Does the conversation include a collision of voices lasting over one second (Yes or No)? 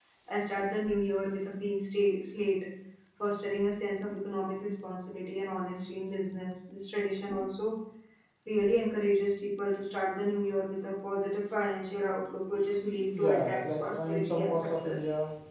Yes